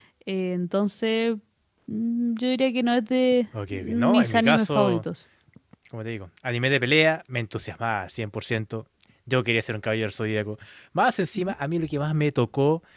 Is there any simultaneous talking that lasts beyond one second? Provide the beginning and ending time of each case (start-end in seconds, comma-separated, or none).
3.7-5.0